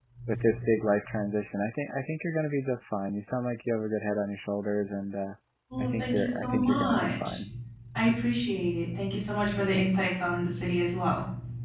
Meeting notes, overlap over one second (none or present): present